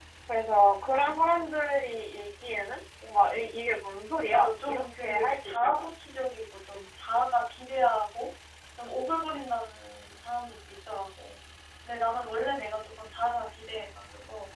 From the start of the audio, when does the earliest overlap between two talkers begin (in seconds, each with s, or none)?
4.3 s